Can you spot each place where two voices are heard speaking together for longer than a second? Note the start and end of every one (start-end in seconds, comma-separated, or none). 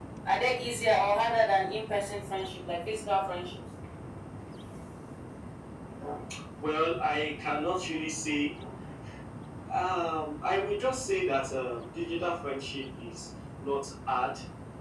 none